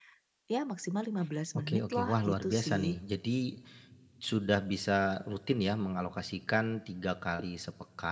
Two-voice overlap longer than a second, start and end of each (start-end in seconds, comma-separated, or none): 1.6-3.0